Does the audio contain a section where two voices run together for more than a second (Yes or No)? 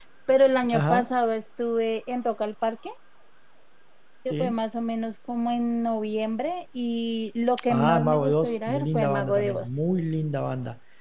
Yes